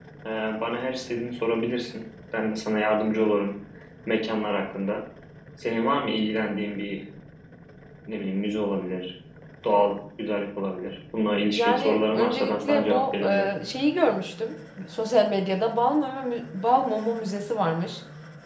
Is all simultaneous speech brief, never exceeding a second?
No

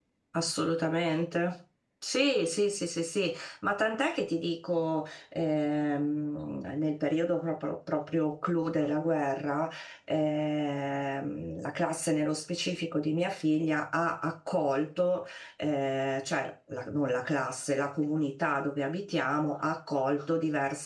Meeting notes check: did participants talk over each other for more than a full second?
No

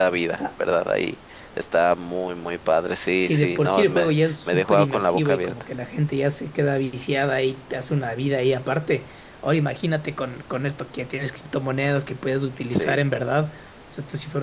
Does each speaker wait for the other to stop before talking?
No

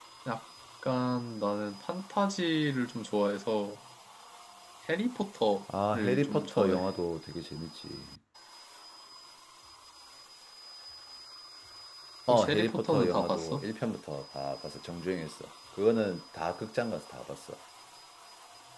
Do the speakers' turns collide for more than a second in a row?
Yes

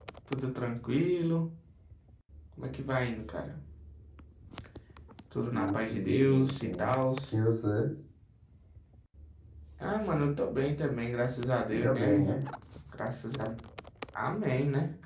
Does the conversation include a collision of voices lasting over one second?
Yes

